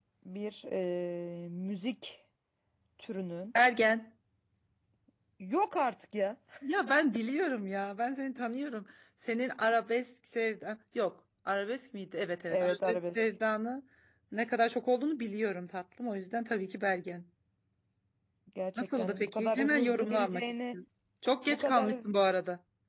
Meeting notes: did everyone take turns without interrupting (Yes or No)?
No